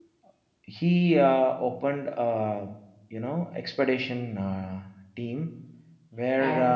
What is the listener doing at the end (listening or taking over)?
listening